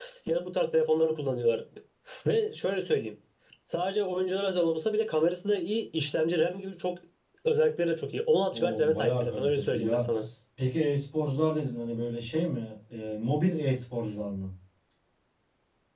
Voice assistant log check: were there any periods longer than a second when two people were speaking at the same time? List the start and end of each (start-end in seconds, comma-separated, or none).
8.5-10.0